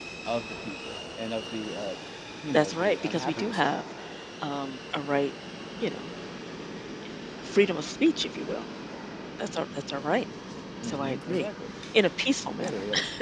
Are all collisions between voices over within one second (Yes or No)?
No